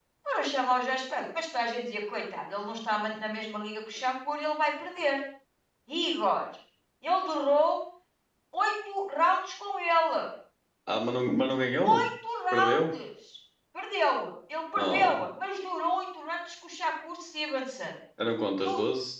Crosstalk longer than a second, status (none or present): none